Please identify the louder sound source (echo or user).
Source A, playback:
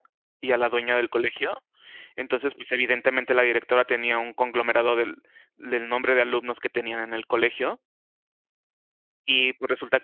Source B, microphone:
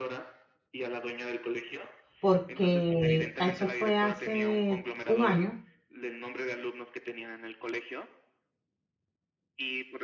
user